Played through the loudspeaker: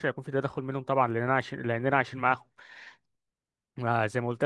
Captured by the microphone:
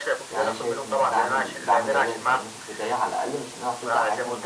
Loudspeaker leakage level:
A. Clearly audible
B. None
A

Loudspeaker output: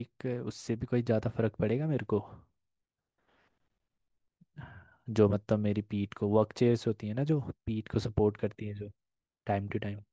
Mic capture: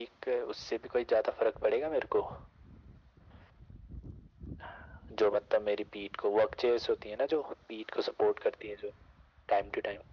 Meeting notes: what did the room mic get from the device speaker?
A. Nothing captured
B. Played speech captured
B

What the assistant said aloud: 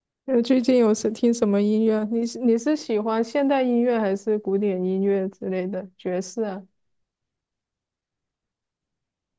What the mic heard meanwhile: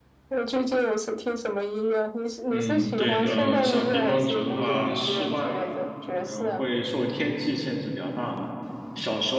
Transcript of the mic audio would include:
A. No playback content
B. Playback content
B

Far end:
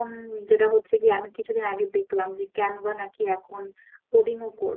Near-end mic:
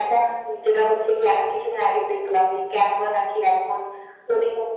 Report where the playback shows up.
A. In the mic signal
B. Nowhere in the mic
A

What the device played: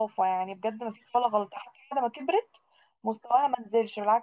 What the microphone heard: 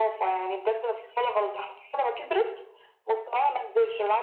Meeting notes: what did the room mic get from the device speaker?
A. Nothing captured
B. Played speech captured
B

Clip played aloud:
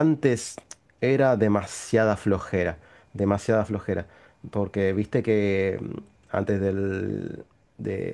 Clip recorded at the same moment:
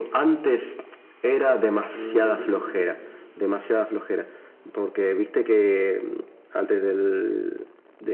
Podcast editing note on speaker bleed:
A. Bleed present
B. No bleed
A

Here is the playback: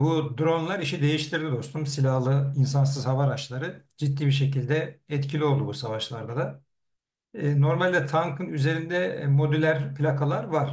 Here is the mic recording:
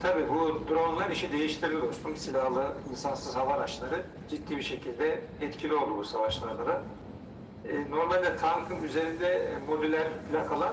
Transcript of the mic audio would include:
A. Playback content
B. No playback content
A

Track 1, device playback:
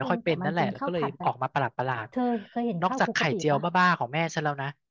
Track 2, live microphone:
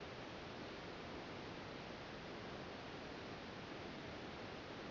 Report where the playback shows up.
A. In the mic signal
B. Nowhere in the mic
B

